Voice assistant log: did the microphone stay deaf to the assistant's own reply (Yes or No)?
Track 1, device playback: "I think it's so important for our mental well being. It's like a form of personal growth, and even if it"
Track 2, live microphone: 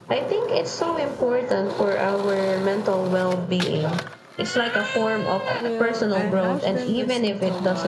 No